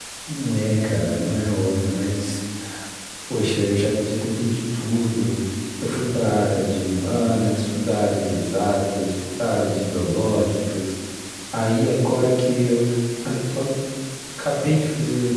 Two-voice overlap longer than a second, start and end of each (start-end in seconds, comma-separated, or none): none